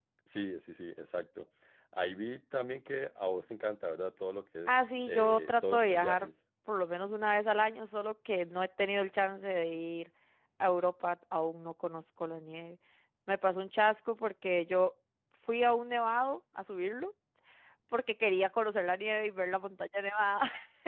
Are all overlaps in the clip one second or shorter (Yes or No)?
No